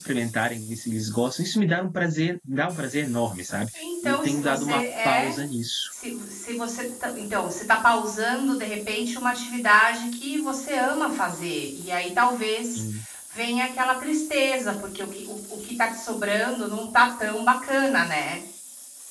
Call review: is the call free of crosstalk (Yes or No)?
No